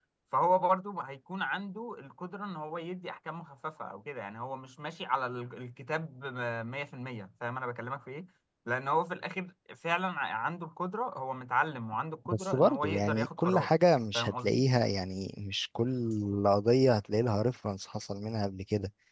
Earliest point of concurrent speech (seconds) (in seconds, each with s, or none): 12.2 s